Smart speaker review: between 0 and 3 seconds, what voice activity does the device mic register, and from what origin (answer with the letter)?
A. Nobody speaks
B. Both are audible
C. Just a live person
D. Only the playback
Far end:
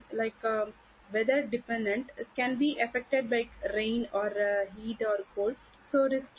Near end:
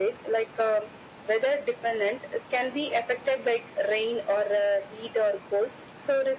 D